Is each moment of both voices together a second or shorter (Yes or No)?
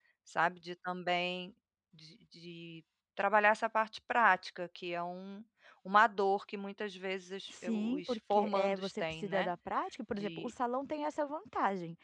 No